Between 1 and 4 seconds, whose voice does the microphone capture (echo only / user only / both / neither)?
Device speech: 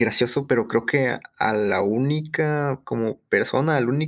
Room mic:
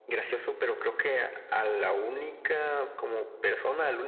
echo only